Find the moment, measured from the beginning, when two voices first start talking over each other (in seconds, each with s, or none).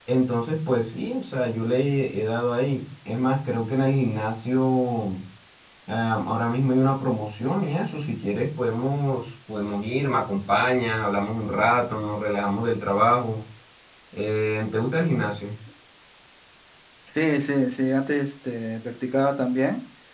none